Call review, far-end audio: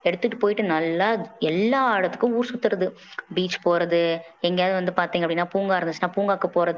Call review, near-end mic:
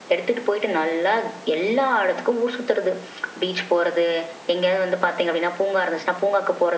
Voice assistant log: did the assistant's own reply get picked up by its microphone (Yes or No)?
Yes